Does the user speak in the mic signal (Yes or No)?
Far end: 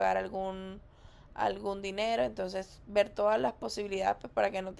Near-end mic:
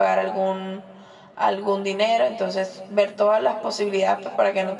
No